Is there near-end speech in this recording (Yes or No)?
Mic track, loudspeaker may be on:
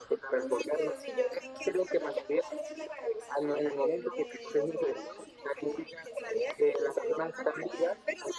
Yes